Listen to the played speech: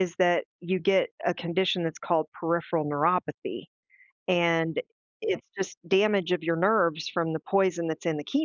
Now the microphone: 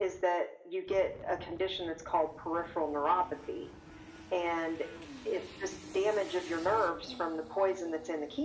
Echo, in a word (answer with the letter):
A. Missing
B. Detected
B